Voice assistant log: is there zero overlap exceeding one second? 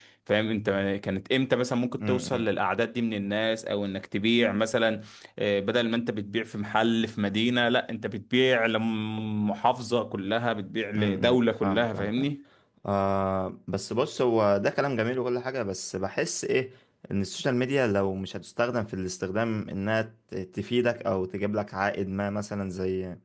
No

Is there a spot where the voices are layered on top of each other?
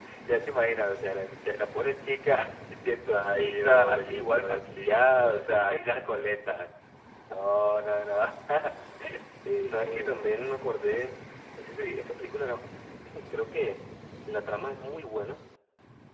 Yes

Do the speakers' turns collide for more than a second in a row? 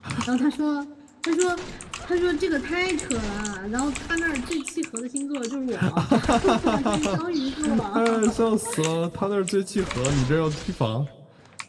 Yes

